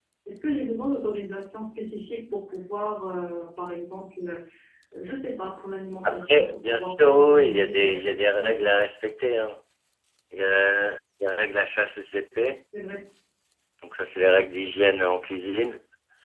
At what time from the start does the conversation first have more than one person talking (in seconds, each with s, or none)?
6.0 s